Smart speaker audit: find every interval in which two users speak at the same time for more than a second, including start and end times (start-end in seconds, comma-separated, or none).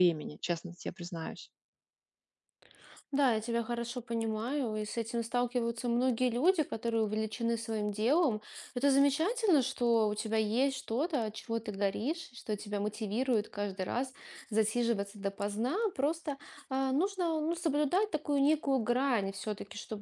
none